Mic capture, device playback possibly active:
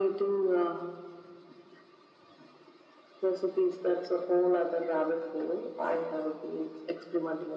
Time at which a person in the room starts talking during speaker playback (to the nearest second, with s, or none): none